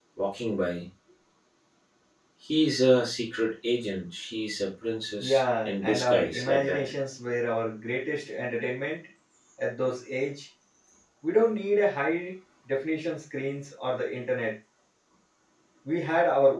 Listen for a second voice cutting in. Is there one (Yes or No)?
Yes